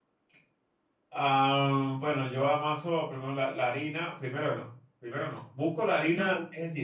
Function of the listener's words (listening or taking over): taking over